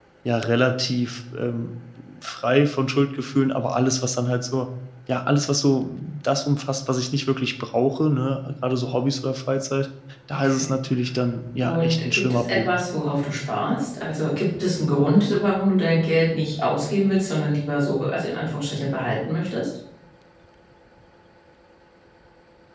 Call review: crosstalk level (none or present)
present